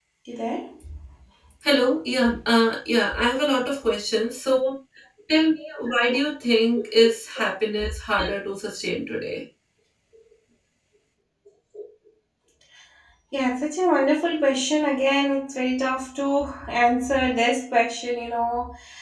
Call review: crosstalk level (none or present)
none